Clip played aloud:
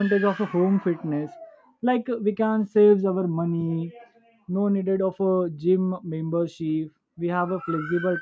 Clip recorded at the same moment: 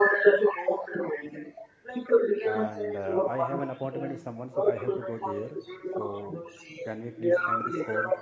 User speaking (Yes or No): Yes